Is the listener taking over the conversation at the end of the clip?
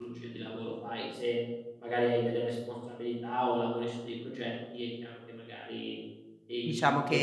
Yes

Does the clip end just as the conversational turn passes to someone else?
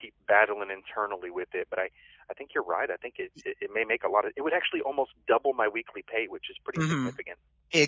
Yes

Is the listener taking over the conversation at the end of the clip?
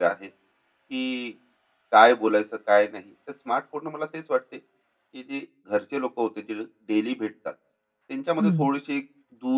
No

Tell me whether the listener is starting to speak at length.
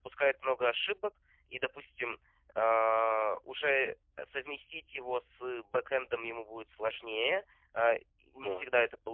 No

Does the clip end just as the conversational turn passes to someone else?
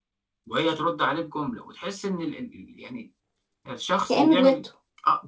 No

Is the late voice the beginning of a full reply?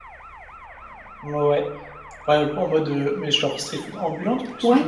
Yes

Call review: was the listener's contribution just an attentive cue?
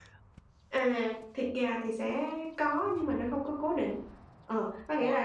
Yes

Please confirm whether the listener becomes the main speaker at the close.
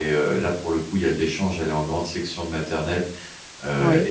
No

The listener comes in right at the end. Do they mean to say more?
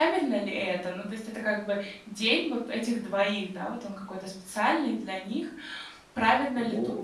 No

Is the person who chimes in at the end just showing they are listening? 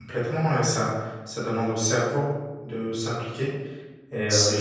Yes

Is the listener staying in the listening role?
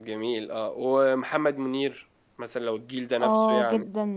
No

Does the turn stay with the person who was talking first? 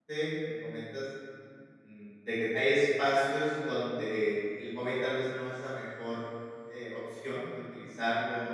Yes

